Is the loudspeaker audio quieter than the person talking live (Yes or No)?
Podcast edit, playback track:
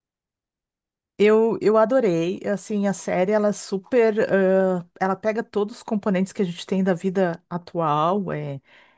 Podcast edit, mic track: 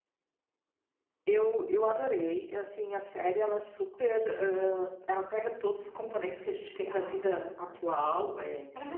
No